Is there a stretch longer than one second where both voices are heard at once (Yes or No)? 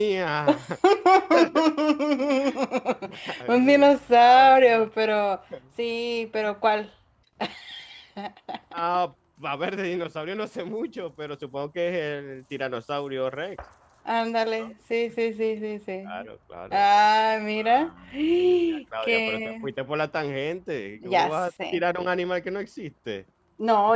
Yes